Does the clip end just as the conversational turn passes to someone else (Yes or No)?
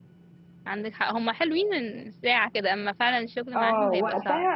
Yes